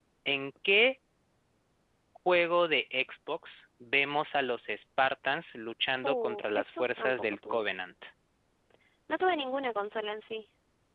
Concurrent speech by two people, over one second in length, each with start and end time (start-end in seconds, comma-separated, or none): 6.0-7.7